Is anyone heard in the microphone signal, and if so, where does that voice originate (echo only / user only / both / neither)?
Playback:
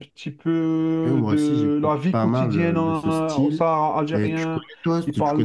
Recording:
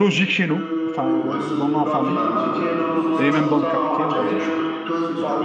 both